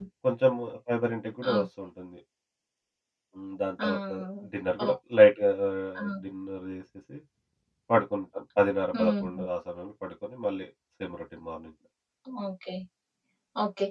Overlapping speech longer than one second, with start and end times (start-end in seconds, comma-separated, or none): none